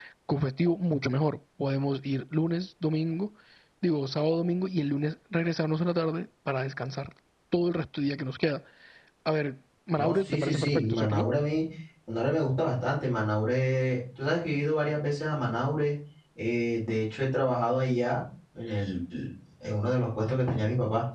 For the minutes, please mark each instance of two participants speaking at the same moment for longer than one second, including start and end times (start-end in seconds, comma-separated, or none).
9.9-11.3